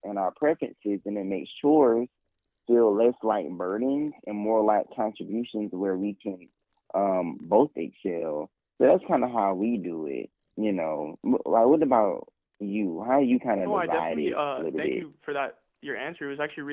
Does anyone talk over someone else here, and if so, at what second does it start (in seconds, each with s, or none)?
13.7 s